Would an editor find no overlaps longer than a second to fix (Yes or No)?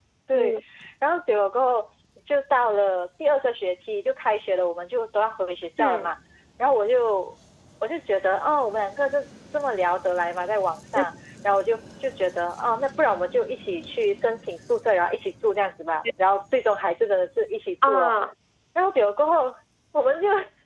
Yes